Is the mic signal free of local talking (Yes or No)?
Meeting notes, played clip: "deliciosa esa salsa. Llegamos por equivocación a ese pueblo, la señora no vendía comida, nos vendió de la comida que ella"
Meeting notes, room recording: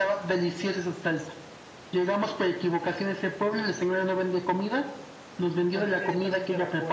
No